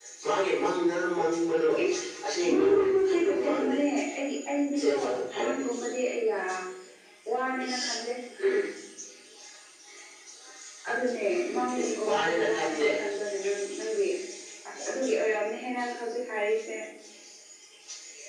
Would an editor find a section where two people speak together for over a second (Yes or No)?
Yes